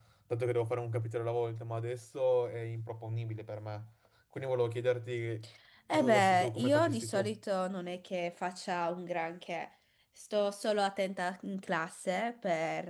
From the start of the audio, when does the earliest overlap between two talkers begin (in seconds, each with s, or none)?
5.9 s